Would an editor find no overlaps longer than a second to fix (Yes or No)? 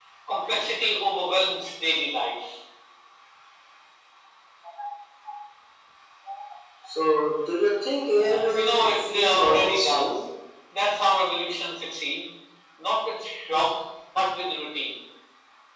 No